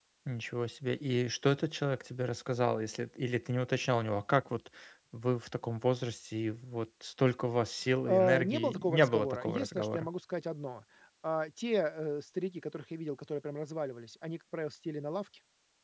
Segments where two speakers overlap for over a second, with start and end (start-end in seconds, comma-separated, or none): 8.1-10.1